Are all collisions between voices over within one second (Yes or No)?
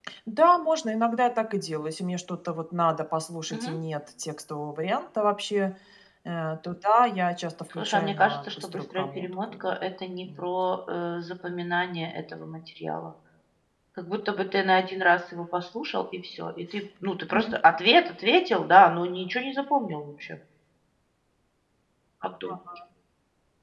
No